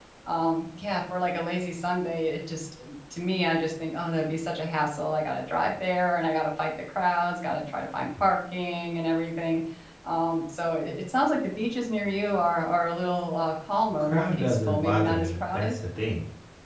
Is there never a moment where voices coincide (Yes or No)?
No